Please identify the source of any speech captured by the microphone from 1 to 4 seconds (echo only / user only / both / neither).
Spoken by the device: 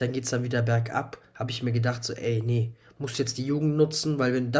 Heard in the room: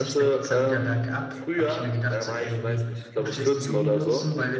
both